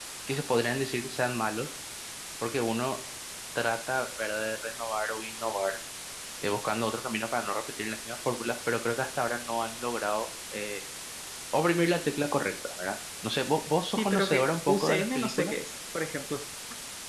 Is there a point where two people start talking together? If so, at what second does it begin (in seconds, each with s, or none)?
14.0 s